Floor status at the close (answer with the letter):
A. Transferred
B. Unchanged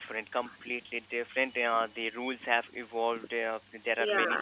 B